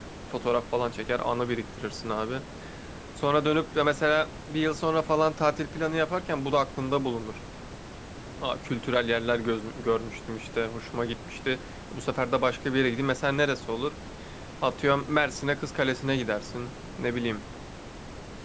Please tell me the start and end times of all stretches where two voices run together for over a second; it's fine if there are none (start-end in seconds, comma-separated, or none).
none